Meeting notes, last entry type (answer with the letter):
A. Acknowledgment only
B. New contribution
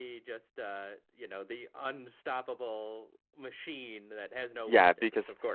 B